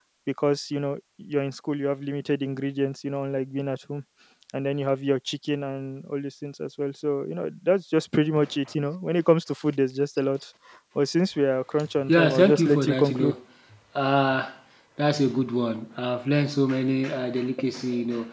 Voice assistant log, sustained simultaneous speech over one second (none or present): present